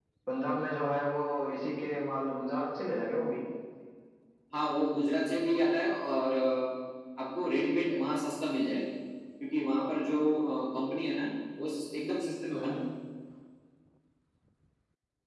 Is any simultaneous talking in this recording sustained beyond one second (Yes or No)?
No